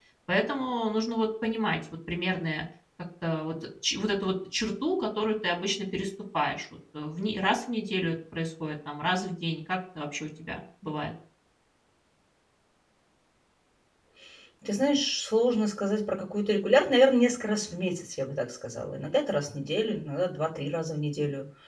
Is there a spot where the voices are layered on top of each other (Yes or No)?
No